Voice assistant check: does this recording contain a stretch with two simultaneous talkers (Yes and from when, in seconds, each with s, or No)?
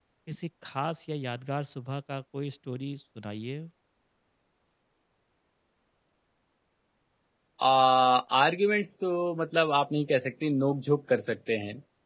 No